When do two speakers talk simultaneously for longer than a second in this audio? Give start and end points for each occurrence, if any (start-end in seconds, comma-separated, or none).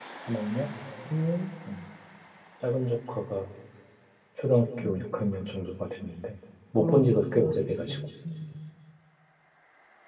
6.8-8.0